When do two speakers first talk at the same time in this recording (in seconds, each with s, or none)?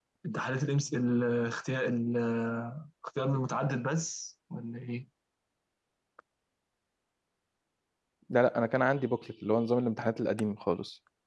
none